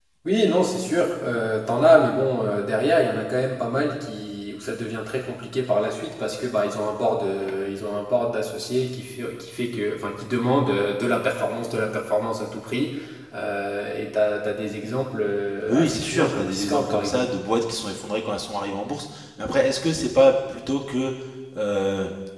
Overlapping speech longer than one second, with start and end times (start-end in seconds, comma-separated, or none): 15.7-17.2